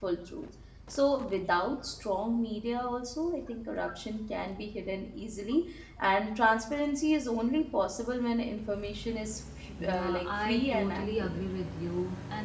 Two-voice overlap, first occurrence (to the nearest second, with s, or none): 10 s